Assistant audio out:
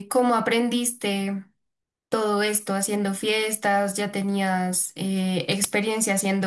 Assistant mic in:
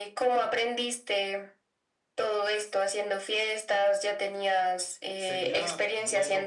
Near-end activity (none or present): present